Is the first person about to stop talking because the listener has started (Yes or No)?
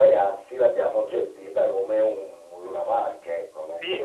Yes